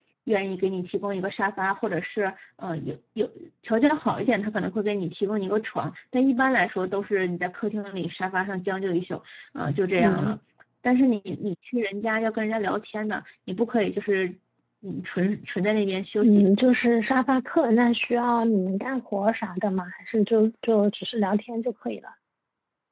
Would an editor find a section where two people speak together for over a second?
No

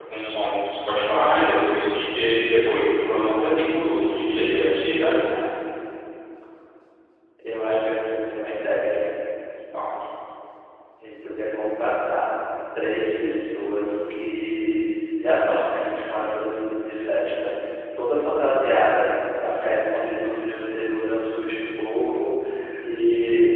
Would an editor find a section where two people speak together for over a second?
No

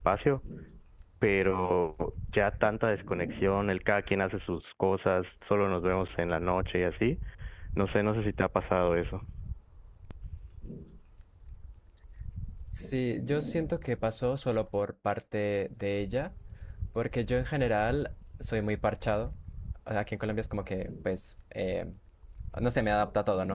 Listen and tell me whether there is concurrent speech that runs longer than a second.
No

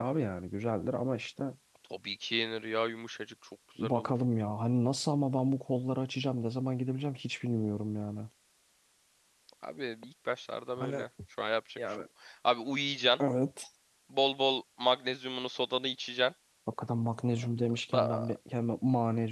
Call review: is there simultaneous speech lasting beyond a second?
No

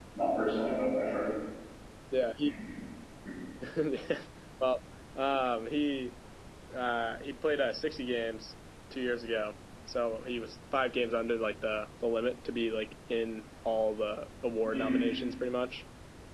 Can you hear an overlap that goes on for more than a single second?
No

